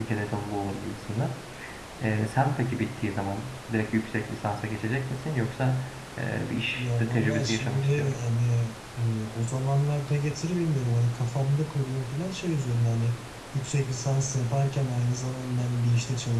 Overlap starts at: 6.7 s

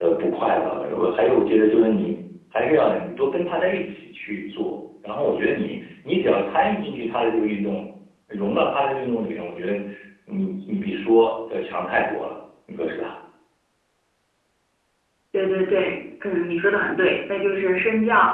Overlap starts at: none

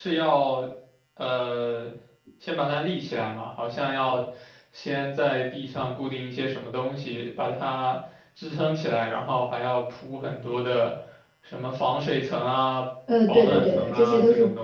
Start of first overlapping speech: 13.1 s

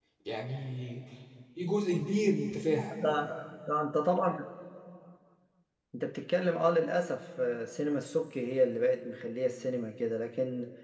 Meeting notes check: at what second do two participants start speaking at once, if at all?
none

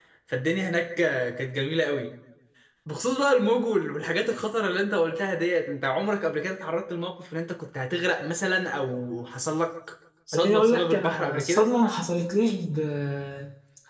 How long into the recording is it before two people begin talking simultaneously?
10.3 s

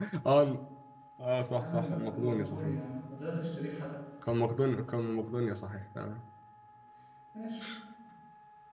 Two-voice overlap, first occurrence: 1.6 s

